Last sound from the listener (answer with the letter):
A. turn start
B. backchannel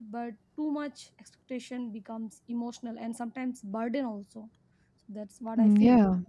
A